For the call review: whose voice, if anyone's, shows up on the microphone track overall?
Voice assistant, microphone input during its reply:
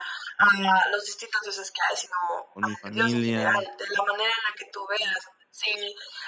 both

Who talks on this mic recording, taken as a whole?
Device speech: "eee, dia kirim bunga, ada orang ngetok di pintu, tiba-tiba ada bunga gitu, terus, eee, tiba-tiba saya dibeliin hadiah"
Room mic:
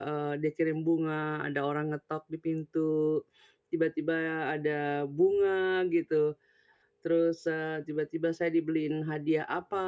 echo only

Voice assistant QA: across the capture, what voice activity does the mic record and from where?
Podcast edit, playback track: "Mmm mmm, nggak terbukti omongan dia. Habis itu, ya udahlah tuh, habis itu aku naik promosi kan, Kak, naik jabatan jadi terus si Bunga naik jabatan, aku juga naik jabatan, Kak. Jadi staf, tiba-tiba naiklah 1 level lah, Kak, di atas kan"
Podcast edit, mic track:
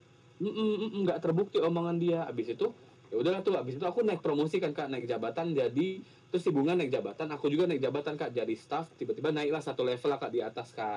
echo only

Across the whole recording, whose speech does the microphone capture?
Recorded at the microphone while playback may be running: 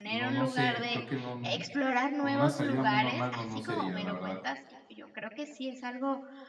both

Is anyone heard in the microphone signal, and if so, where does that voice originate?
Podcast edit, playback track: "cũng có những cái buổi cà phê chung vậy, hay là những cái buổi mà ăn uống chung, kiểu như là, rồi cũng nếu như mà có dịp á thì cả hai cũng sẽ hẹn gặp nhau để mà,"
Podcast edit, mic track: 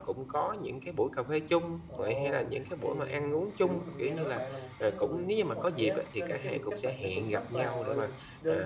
both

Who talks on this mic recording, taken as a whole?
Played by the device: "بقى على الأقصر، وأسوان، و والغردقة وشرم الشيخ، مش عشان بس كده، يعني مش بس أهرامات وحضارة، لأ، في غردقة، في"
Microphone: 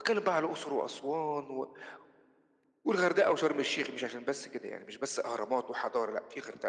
echo only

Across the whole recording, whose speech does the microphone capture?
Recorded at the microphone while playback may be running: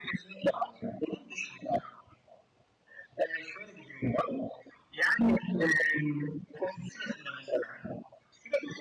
echo only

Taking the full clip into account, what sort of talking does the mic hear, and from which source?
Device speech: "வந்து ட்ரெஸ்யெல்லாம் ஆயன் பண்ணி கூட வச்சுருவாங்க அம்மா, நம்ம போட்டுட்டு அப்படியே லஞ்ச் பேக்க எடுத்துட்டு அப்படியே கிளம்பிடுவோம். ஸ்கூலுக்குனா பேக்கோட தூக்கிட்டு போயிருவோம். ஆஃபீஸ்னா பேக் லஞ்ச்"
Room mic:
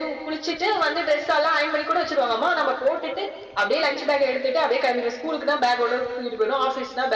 echo only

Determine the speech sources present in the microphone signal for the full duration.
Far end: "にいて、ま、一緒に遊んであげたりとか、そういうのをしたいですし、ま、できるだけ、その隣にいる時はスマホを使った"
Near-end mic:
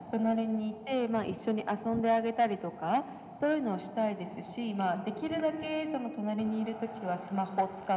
echo only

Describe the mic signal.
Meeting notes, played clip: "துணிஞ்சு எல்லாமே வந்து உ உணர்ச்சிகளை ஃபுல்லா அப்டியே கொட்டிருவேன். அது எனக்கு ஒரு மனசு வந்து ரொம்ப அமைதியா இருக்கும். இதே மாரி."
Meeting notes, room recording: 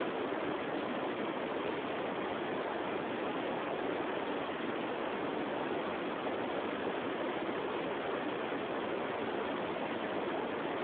neither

